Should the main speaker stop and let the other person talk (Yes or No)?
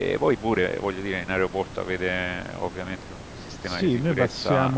Yes